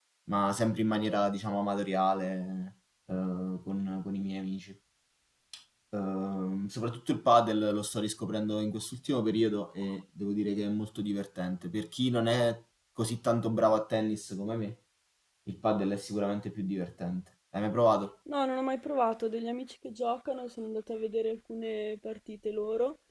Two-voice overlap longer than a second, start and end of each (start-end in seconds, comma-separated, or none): none